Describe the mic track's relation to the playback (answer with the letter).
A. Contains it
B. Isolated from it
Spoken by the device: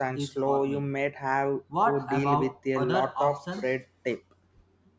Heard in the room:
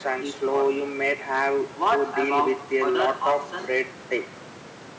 A